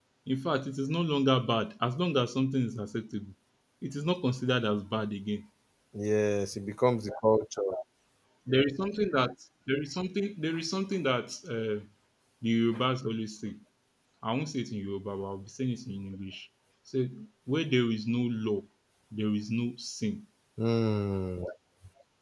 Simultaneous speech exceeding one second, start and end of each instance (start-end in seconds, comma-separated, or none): none